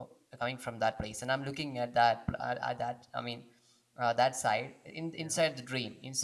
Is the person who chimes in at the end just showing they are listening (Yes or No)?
Yes